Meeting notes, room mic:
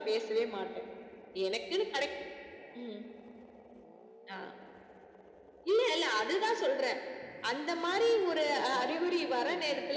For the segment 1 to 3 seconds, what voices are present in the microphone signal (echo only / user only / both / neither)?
echo only